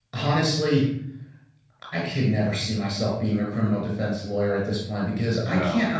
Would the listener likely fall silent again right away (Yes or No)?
Yes